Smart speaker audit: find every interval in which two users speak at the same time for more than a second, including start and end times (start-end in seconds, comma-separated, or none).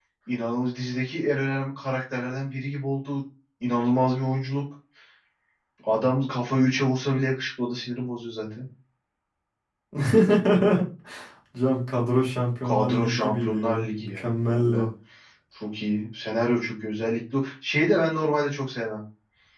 12.6-14.9